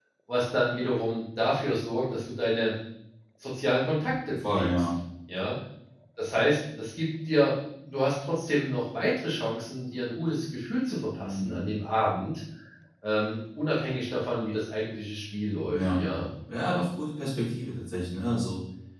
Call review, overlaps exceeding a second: none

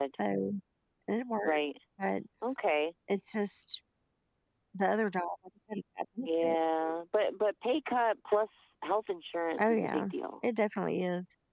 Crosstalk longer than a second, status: none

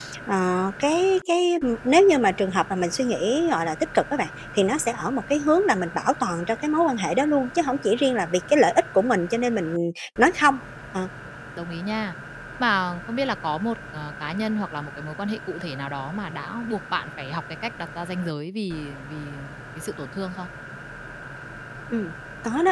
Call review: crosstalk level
none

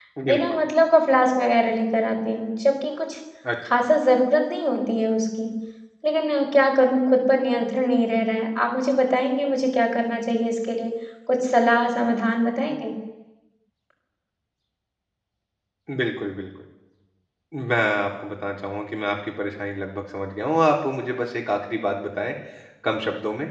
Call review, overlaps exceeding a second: none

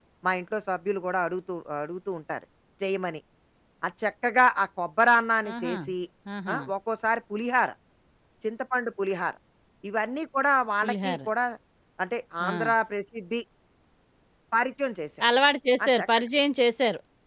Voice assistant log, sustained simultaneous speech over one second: none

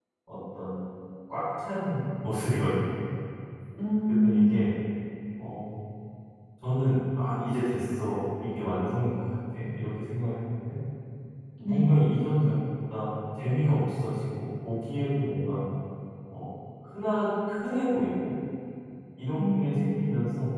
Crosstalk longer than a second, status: none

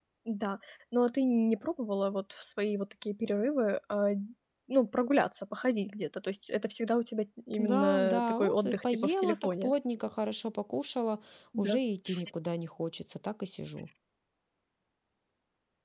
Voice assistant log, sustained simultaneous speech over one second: present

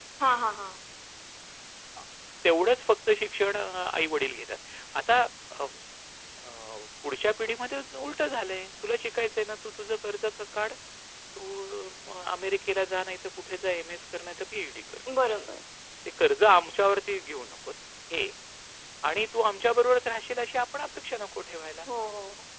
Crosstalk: none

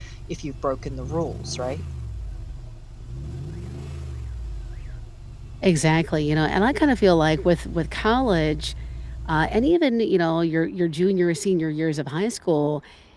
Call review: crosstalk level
none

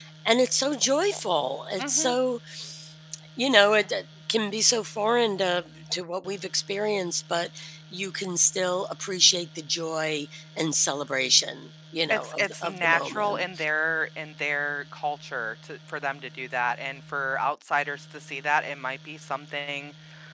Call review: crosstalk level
present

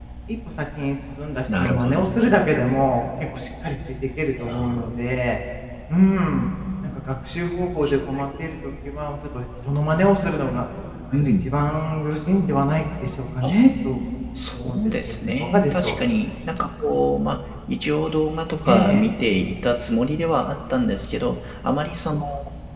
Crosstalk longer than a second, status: present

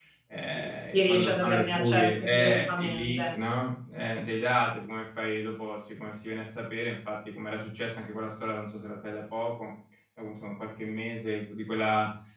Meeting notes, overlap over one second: present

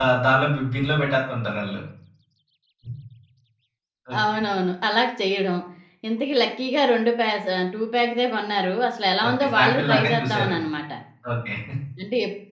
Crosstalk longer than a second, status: present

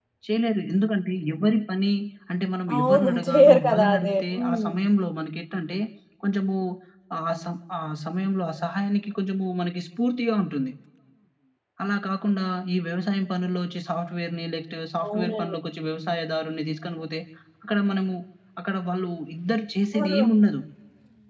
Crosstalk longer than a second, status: present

